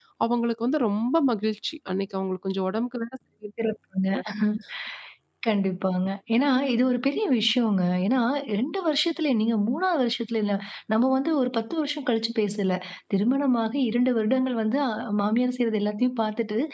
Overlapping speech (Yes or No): No